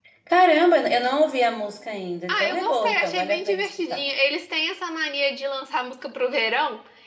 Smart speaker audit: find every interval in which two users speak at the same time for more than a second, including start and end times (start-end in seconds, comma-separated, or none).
2.3-4.0